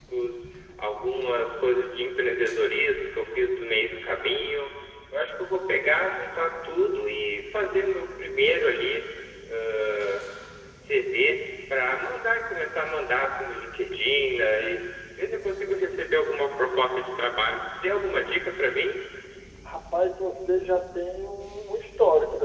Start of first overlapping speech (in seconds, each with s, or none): none